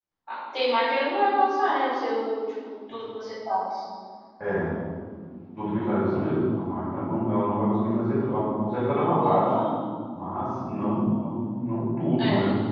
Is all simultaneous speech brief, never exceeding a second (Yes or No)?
Yes